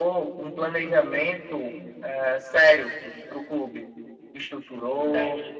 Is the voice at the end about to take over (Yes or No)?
No